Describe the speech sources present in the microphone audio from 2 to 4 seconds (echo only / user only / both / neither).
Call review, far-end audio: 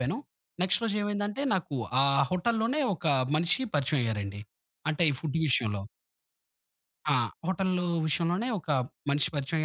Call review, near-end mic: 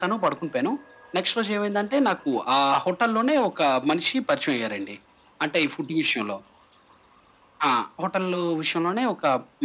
echo only